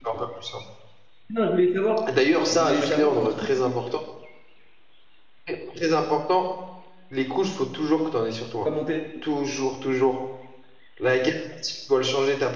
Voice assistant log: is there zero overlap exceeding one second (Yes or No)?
No